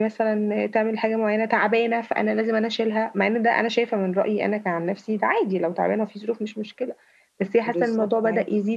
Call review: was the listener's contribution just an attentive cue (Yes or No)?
Yes